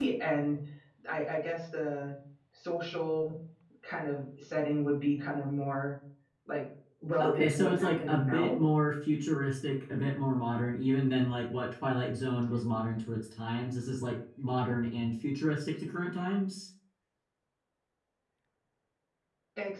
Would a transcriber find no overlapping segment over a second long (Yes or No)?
No